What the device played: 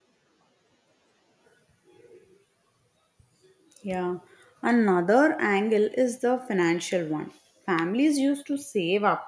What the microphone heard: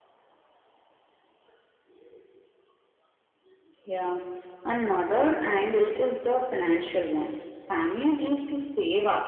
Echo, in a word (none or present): present